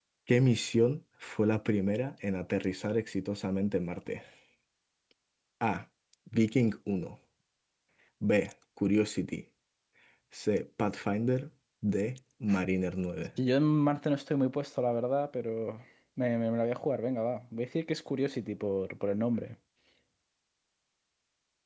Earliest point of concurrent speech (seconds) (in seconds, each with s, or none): none